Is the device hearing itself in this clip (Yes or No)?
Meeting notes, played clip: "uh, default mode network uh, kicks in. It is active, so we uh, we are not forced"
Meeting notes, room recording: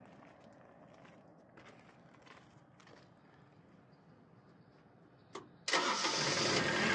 No